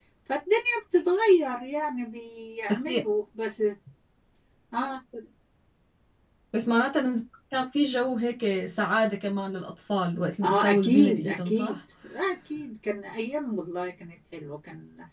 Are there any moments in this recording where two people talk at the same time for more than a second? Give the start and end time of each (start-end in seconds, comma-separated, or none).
10.4-11.8